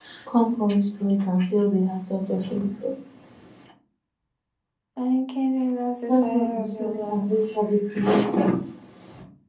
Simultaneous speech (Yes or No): Yes